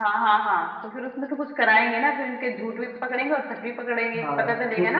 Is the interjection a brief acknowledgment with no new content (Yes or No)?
No